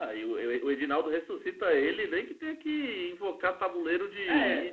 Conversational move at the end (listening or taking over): taking over